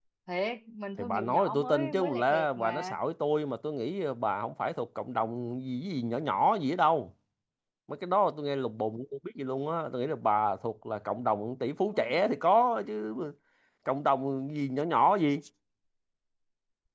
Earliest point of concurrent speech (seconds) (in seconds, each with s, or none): 1.0 s